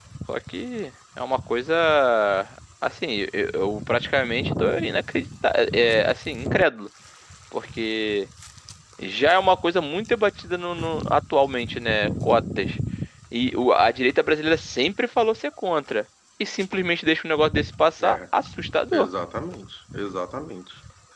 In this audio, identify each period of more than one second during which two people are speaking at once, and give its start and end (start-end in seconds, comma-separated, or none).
none